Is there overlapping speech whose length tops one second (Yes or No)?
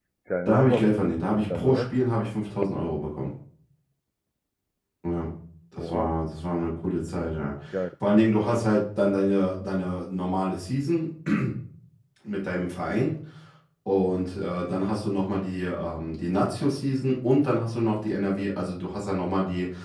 No